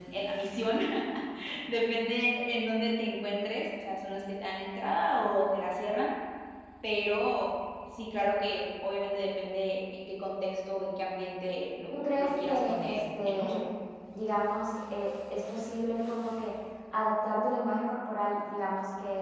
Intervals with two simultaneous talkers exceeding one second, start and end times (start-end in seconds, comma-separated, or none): 11.9-13.6